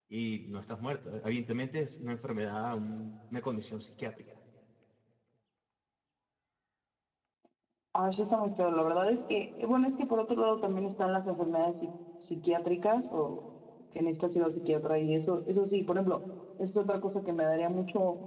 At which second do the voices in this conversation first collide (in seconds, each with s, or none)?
none